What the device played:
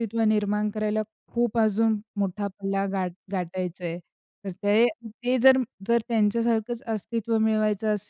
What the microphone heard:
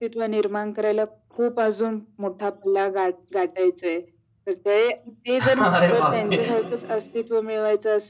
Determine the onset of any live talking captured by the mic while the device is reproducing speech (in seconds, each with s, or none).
5.4 s